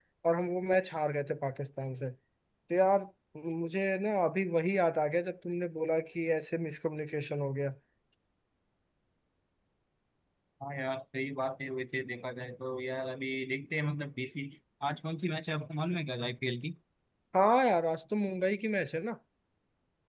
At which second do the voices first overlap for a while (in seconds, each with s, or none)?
none